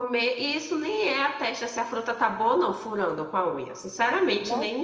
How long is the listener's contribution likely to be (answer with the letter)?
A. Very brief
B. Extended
B